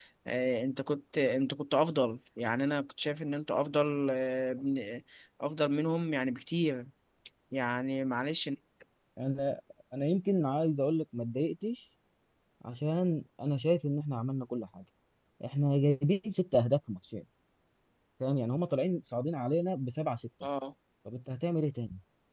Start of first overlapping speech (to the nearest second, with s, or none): none